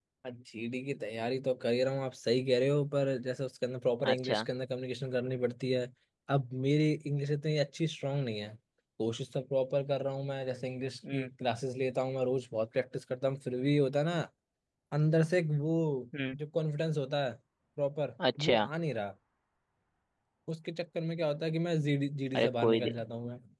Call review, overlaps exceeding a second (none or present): none